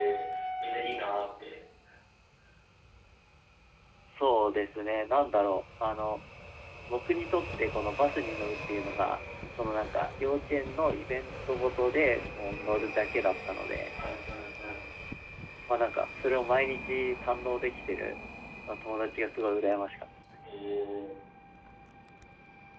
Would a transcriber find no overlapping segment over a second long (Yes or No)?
Yes